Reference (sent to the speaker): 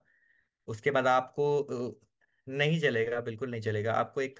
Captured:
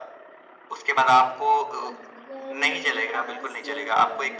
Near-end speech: present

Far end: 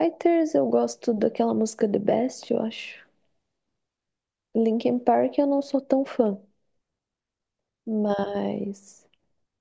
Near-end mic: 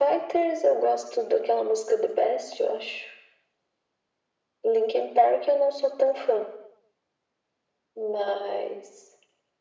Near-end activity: none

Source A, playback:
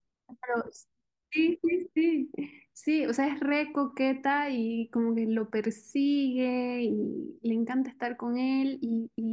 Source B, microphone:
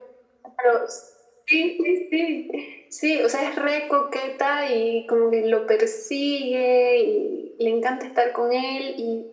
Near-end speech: none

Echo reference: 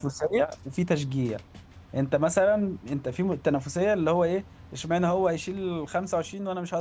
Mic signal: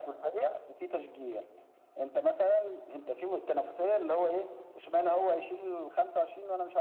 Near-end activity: none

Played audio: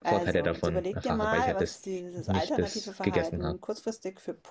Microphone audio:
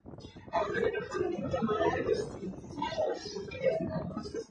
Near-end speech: none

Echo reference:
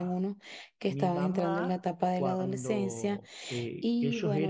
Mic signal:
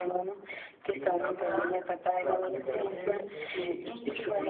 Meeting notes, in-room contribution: present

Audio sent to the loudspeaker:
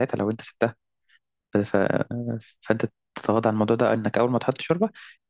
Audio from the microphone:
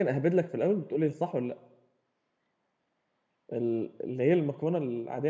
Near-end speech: present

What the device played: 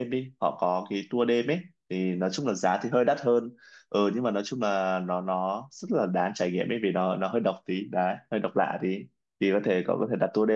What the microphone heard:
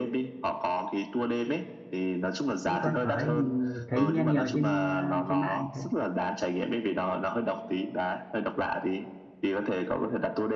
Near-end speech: present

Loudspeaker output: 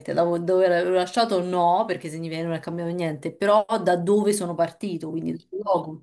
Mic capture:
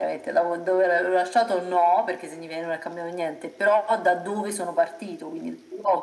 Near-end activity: none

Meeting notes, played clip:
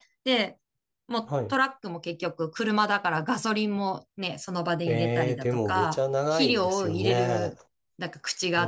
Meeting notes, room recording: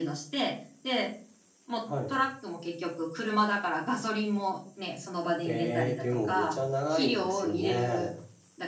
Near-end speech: none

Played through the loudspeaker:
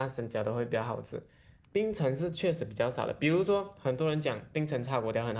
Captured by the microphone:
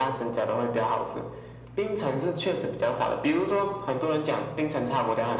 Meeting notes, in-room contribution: none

